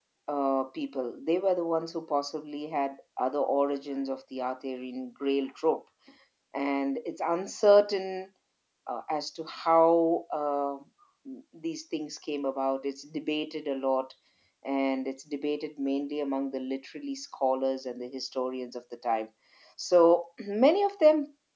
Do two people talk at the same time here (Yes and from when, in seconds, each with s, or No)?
No